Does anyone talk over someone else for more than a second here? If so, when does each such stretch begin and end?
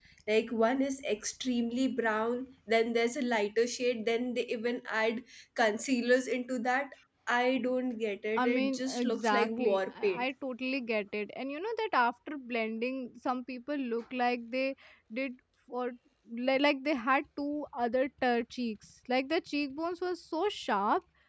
8.4-10.2

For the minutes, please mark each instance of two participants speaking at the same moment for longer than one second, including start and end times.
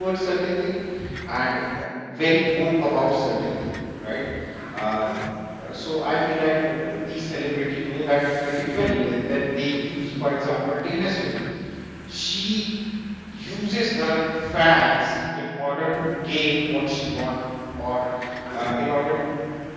none

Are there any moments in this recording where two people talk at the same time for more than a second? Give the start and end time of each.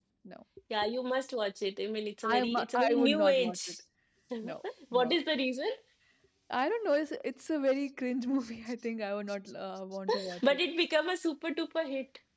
2.3-3.6

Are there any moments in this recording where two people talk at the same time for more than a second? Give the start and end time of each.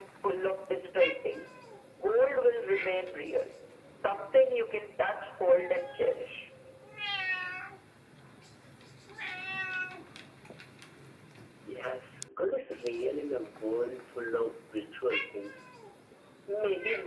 none

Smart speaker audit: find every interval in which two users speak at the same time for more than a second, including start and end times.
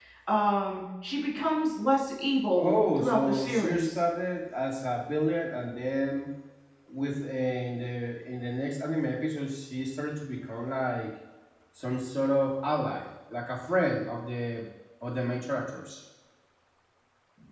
2.6-4.0

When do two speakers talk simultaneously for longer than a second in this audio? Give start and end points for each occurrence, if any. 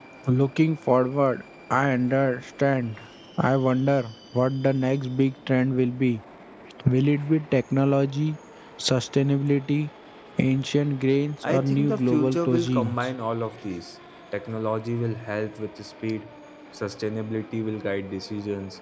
11.4-13.0

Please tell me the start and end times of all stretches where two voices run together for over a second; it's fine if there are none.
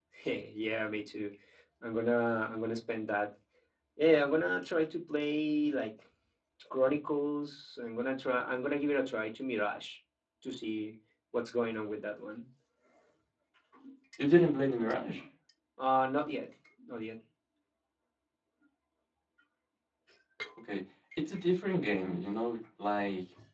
none

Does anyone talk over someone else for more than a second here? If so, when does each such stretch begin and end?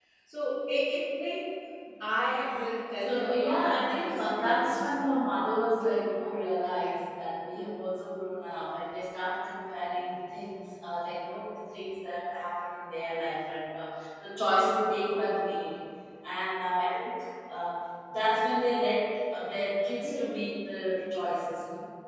3.0-4.9

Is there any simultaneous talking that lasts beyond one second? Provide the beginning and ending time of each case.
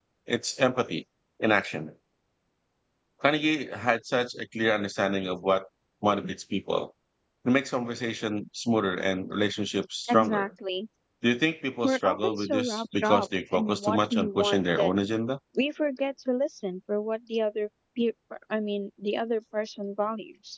11.8-14.9

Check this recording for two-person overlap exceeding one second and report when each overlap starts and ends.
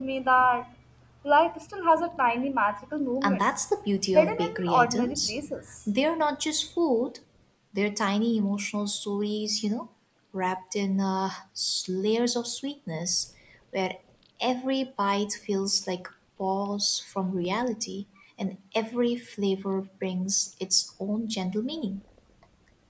4.2-5.4

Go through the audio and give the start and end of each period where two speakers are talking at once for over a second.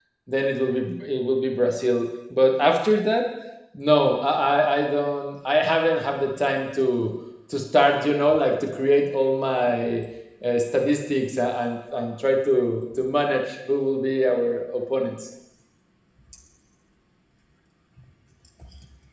none

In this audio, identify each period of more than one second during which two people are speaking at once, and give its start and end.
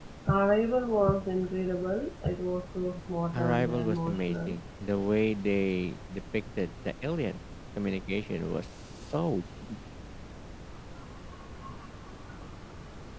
3.3-4.6

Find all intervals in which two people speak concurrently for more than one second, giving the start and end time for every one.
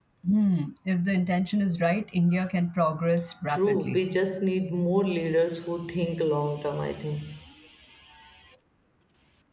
none

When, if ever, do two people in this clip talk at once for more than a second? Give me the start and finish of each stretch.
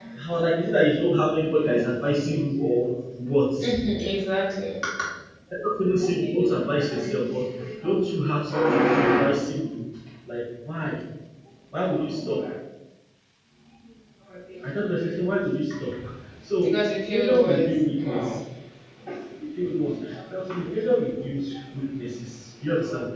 17.1-18.4

